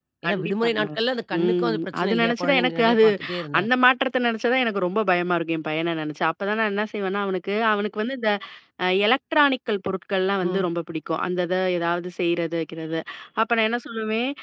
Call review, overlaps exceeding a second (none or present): present